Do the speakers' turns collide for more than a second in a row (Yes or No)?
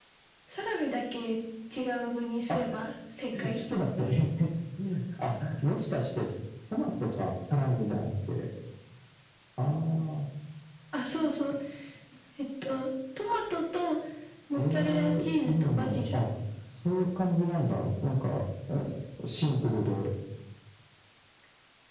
Yes